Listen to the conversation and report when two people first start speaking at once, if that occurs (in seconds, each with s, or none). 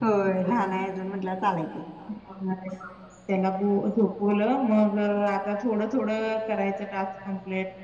none